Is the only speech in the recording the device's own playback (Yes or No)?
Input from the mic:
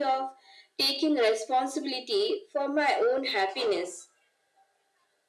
Yes